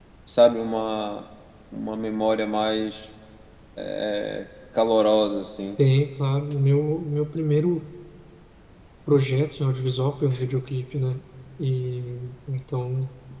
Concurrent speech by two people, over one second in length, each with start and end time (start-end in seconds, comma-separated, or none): none